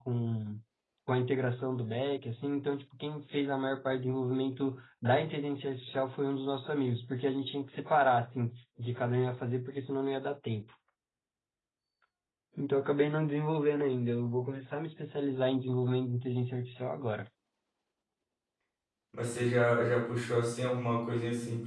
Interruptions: none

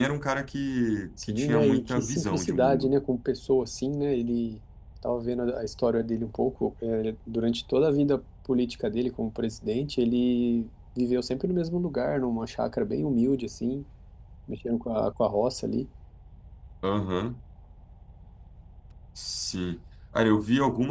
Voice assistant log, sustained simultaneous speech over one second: present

